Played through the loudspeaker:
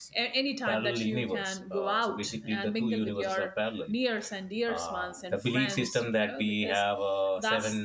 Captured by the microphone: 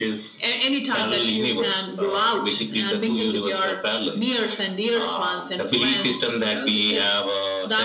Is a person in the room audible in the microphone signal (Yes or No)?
No